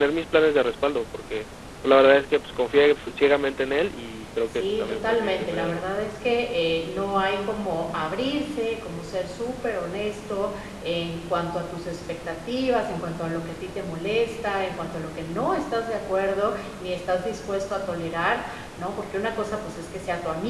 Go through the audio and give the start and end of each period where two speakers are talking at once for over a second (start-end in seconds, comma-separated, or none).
4.5-5.8